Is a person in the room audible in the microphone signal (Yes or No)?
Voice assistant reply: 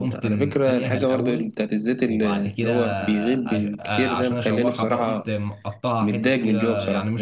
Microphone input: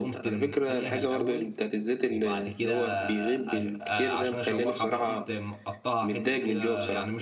No